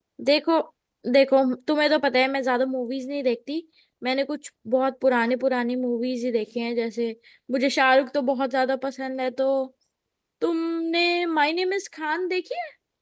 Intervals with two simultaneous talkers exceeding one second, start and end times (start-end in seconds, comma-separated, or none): none